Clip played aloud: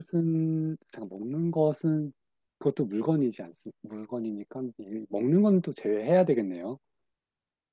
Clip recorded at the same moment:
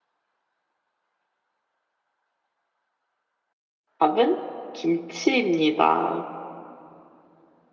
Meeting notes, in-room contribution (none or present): present